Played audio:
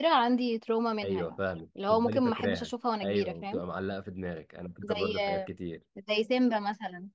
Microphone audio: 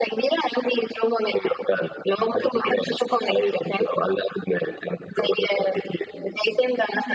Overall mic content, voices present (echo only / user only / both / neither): echo only